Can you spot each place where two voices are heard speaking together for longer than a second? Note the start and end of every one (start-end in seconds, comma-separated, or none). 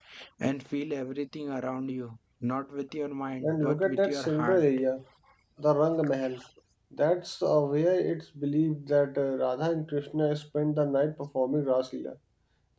3.4-4.6